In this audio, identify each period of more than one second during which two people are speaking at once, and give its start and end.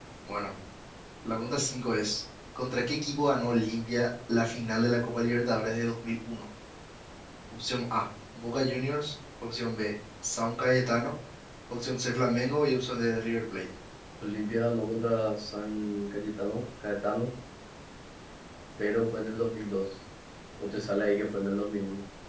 none

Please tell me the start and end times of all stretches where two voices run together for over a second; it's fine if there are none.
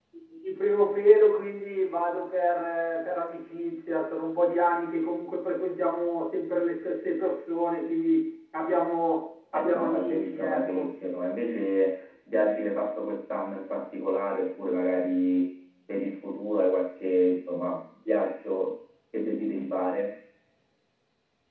9.5-10.9

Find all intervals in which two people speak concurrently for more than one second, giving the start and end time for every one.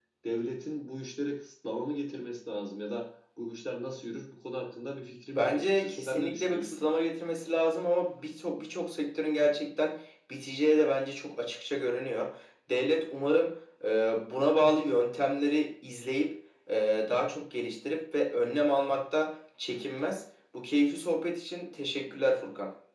5.4-6.8

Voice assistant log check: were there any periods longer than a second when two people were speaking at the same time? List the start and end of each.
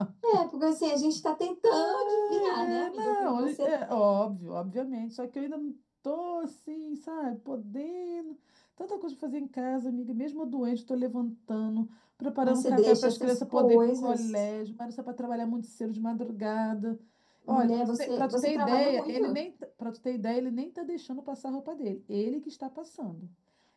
1.6-3.7, 12.4-14.4, 17.5-19.2

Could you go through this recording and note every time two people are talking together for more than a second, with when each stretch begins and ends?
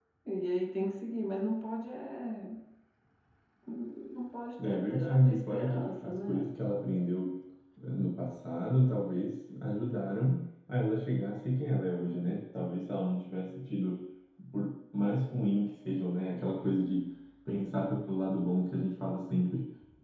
4.6-6.5

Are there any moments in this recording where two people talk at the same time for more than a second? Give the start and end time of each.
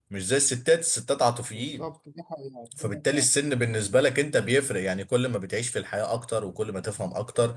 none

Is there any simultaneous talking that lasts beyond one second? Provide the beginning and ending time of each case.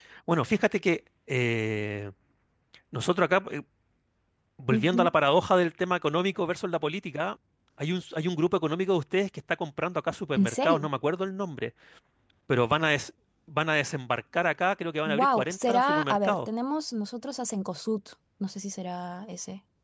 15.1-16.4

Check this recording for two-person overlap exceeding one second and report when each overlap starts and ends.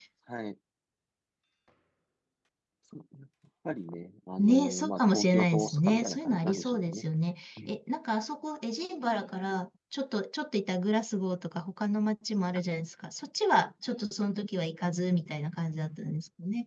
4.4-7.0

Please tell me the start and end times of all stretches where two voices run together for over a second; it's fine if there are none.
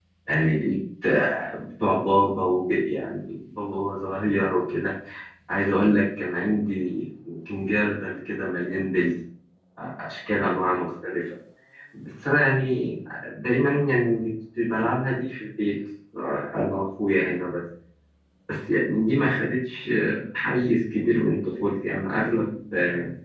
none

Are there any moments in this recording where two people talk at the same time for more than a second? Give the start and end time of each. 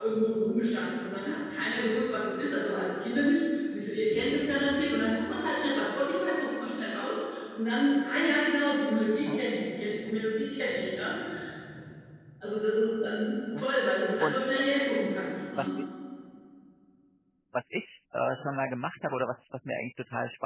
none

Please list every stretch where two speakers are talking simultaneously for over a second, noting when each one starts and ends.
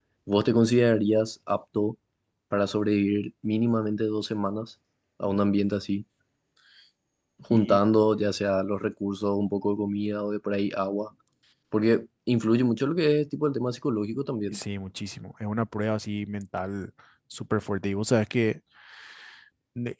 none

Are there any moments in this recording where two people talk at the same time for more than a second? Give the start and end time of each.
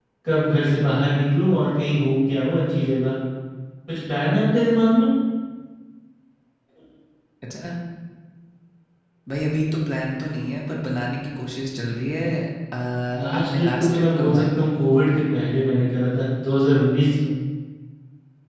13.2-14.6

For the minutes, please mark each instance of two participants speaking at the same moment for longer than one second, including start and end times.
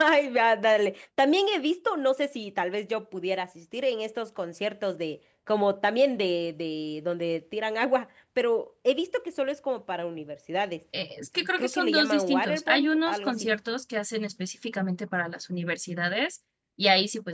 11.6-13.5

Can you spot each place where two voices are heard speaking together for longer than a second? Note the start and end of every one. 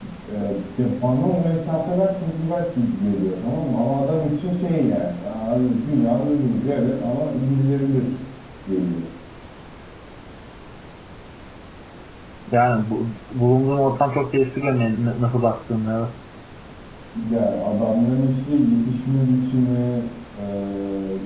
none

